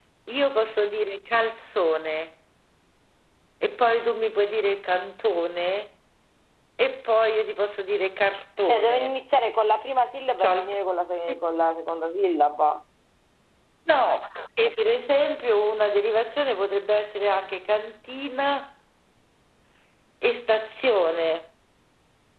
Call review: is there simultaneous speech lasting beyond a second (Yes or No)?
No